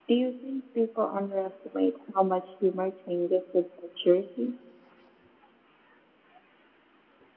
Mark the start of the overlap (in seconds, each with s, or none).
none